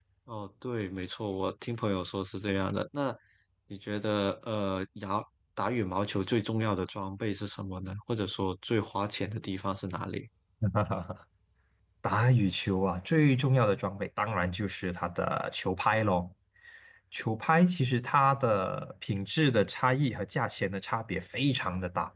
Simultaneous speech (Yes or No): No